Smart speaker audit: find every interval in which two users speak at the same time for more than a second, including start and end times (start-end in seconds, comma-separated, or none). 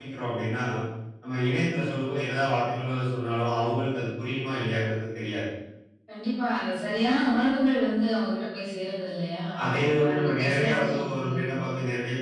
10.0-11.5